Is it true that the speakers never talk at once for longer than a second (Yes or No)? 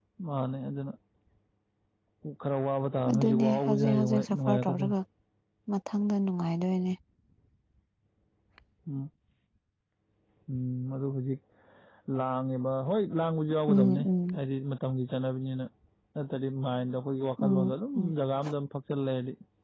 No